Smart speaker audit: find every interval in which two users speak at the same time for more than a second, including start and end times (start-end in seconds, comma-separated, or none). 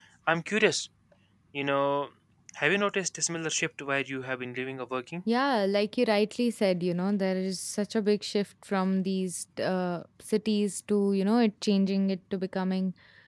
none